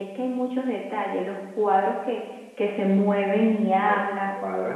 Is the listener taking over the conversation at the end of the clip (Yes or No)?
Yes